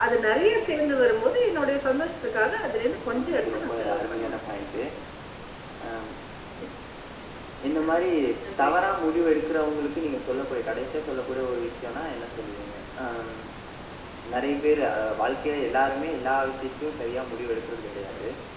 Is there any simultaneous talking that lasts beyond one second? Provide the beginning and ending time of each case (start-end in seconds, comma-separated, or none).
3.1-4.4